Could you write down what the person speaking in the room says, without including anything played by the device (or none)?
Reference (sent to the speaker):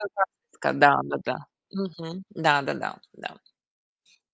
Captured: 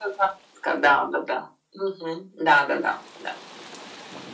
none